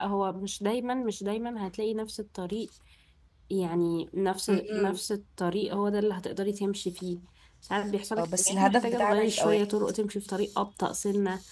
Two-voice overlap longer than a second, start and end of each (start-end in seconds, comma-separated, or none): 8.2-9.6